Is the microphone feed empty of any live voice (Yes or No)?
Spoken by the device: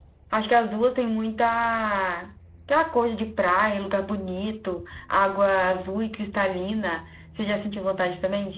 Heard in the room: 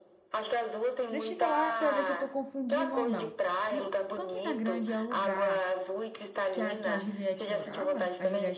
No